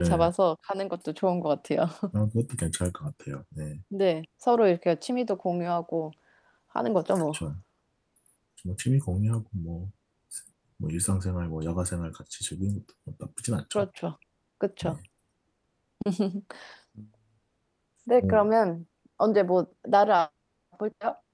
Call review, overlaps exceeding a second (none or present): none